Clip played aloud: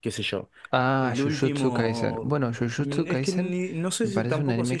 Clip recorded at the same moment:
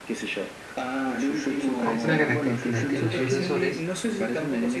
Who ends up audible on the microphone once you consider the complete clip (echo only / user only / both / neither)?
both